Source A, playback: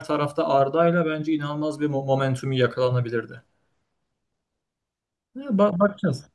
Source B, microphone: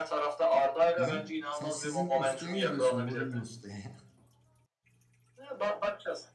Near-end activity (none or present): present